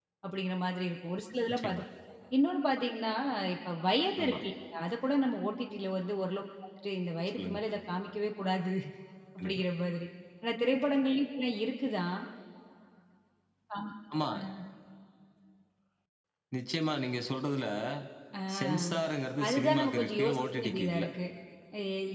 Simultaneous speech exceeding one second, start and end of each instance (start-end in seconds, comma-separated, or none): 19.4-21.0